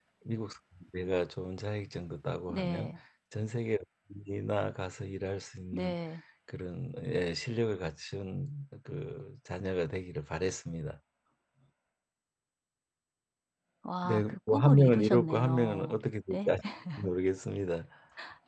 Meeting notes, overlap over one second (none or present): present